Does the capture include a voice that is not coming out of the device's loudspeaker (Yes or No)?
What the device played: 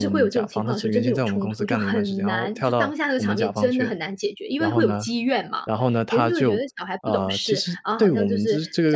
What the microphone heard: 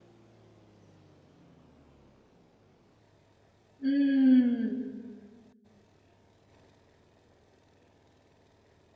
Yes